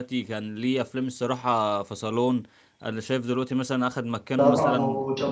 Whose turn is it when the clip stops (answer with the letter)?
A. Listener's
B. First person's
A